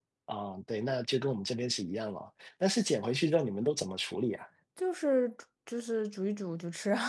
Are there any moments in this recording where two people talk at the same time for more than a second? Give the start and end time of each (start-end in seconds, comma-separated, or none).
none